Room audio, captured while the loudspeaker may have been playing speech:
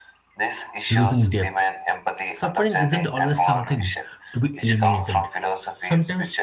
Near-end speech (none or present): present